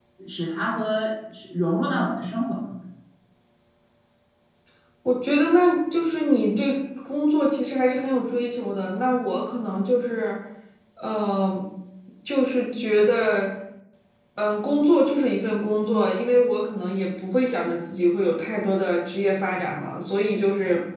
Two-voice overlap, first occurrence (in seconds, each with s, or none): none